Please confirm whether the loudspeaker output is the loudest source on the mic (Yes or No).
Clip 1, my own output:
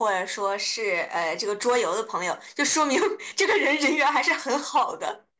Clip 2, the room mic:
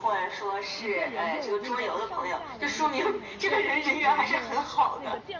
Yes